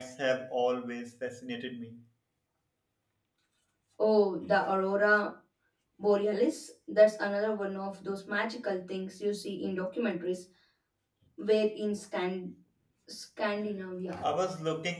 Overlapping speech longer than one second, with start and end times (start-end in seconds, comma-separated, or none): none